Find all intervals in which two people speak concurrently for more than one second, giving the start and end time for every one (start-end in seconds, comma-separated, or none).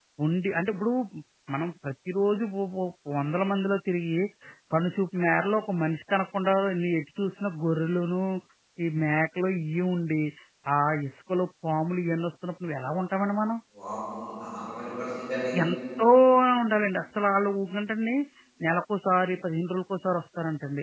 none